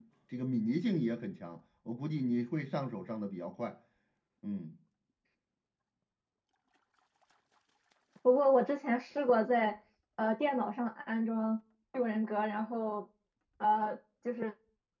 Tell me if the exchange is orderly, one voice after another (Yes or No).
Yes